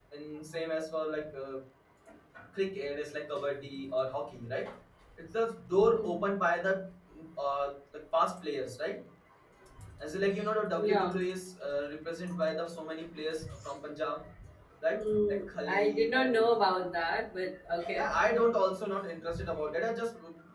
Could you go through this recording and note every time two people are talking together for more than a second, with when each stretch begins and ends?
15.0-16.5

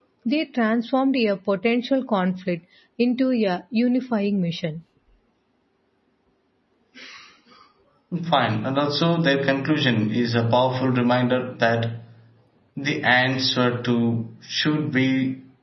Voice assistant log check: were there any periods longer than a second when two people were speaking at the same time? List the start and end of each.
none

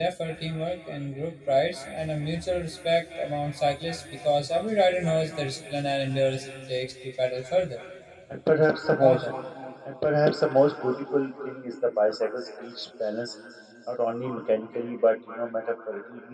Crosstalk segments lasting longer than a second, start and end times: none

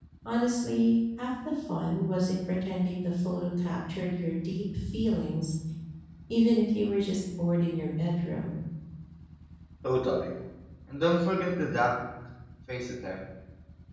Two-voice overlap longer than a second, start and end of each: none

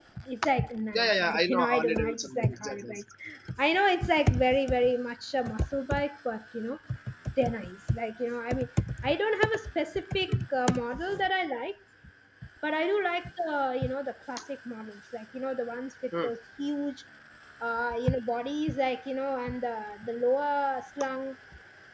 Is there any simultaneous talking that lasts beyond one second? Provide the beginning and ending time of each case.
0.9-2.9

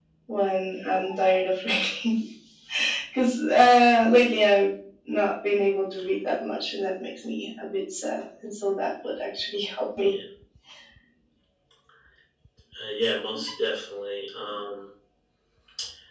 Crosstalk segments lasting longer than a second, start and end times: none

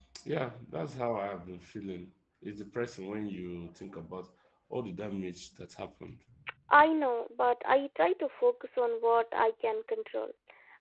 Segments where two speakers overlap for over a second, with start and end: none

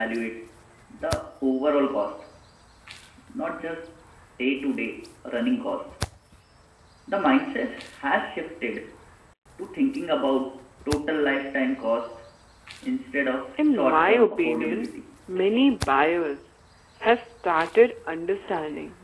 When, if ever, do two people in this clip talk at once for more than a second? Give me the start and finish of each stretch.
13.7-14.9

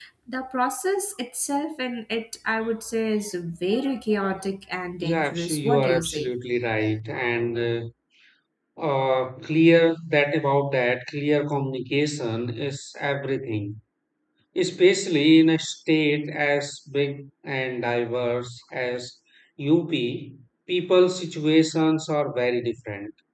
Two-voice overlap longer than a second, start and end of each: 5.0-6.3

